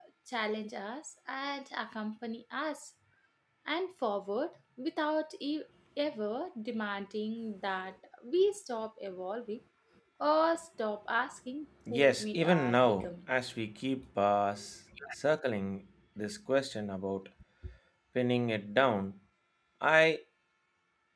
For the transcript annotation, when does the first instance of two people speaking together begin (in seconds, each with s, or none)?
11.9 s